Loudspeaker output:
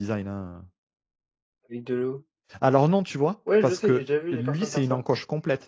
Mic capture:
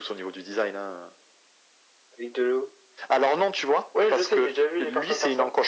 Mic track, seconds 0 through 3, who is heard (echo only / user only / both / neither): echo only